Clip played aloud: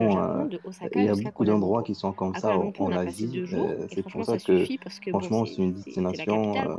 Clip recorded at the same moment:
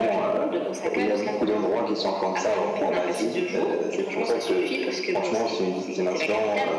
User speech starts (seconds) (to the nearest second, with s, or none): none